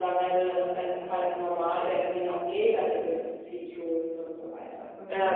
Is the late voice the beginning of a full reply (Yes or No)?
Yes